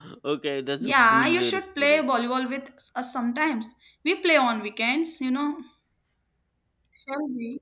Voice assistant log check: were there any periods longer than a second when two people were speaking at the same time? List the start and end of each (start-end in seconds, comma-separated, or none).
0.8-2.0